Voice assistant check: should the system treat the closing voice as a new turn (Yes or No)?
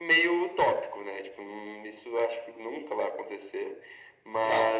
No